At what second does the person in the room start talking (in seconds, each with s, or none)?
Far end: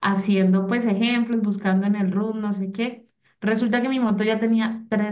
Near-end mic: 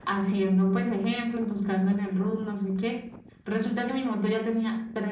none